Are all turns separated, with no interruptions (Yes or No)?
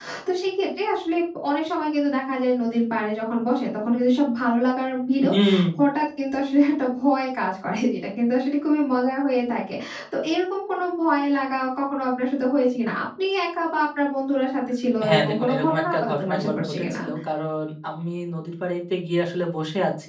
No